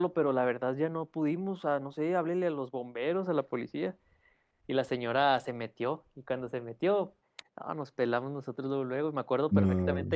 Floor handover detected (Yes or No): No